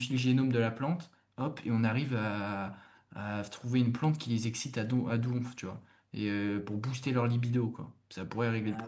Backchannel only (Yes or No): No